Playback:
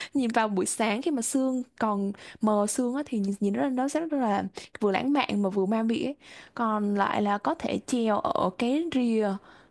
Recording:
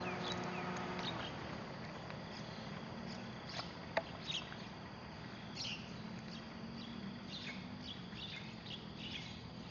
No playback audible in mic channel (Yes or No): Yes